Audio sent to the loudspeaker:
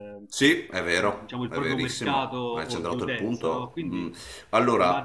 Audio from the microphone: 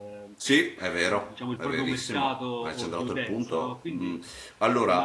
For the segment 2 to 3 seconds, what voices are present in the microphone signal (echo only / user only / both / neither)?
echo only